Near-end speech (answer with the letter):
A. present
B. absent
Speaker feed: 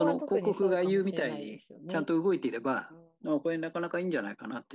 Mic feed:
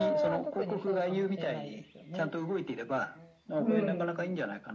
A